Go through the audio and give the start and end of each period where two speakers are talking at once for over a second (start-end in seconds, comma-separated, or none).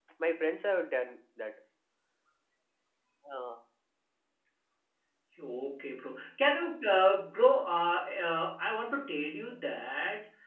none